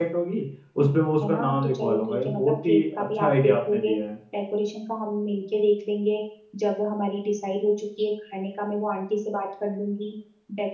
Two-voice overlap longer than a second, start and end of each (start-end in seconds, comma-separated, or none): 1.3-3.9